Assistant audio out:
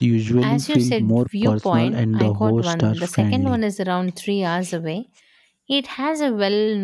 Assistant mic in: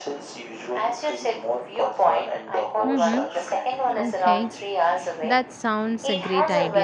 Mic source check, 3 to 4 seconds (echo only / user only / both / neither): both